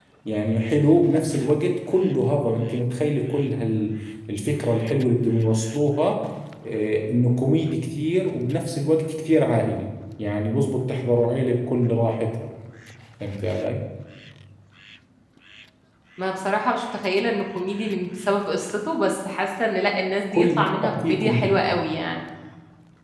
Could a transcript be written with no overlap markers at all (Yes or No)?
No